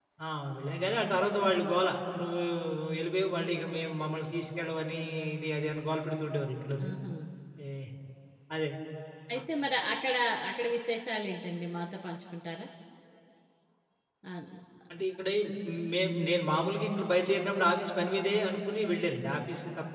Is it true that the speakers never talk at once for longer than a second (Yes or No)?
Yes